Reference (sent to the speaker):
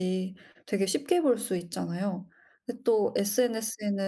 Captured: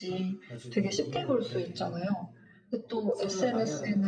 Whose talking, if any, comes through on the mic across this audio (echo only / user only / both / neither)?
both